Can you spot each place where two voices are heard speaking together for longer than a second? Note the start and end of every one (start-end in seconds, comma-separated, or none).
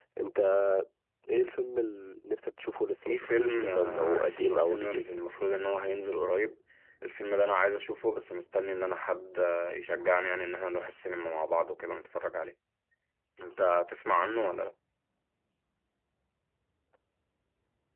3.0-5.0